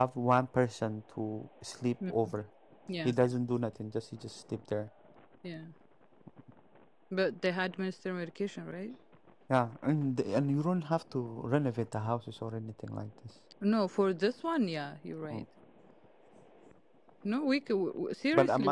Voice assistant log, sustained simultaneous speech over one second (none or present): none